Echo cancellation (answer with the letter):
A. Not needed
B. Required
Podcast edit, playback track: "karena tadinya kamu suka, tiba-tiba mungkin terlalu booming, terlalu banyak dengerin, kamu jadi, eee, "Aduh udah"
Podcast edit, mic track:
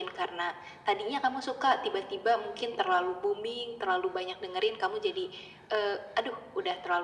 B